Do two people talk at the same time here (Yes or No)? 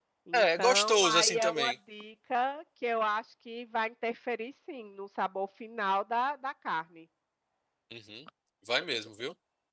Yes